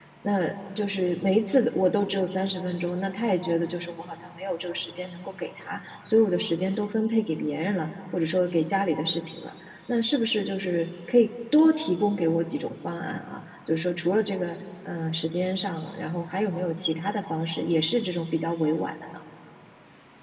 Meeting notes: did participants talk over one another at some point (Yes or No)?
No